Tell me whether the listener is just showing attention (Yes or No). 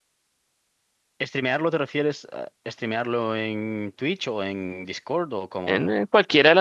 No